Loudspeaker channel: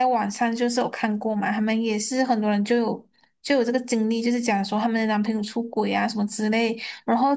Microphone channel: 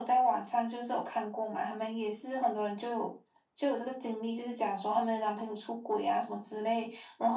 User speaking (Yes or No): No